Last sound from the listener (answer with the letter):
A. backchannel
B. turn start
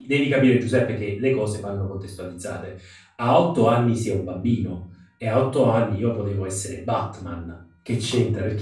A